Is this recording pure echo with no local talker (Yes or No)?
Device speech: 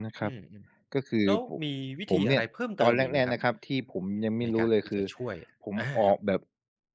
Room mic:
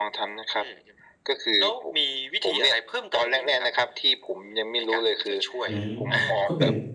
No